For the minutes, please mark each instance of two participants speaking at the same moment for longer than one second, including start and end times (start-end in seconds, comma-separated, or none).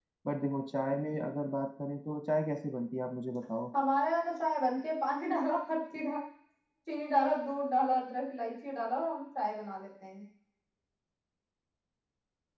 none